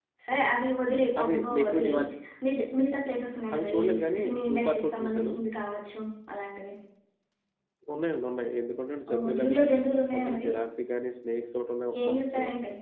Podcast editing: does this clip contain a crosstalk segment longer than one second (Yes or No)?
Yes